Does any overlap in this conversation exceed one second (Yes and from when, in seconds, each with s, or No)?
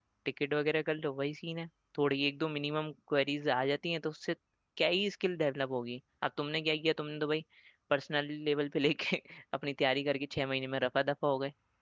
No